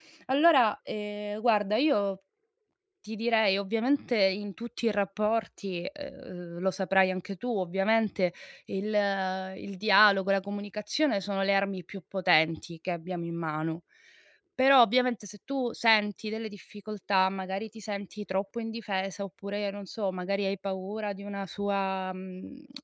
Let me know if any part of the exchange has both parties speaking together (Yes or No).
No